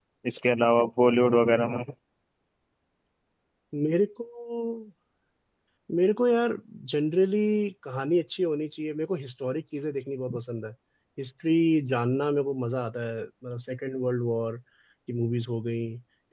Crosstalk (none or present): none